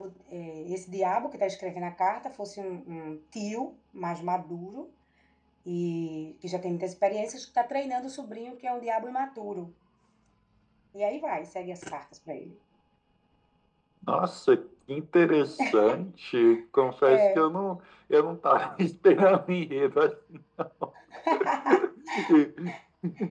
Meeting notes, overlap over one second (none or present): none